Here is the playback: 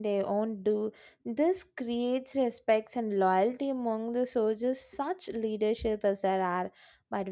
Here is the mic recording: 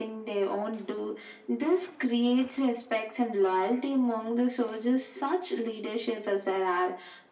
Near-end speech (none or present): none